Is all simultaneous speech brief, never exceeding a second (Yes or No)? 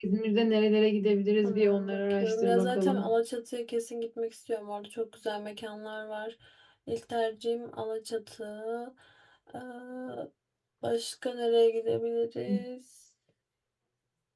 No